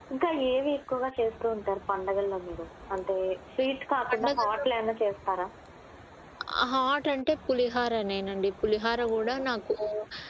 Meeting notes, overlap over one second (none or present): none